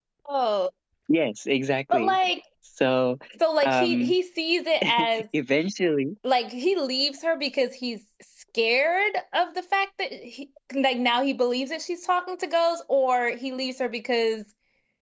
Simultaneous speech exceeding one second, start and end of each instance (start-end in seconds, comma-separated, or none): none